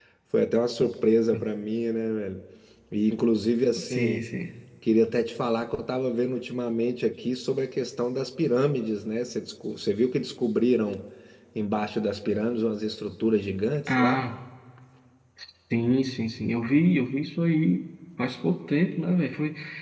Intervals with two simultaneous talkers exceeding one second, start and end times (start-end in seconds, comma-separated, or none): none